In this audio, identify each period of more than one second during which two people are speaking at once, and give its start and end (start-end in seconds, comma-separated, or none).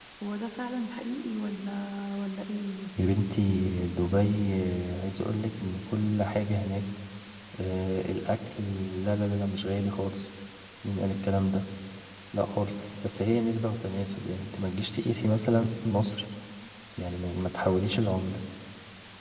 none